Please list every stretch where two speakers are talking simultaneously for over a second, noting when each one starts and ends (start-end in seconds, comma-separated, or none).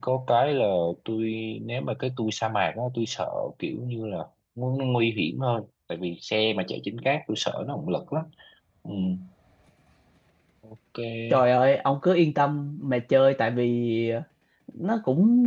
none